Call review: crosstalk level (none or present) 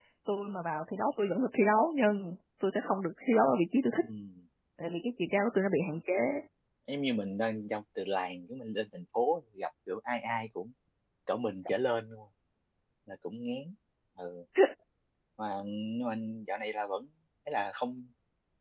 none